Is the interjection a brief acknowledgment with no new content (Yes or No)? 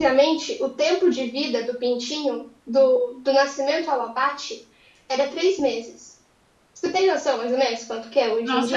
No